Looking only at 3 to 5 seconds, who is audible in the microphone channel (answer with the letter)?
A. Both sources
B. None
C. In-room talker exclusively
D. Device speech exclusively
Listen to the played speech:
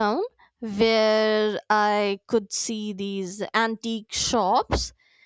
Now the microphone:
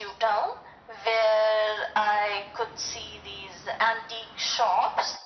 D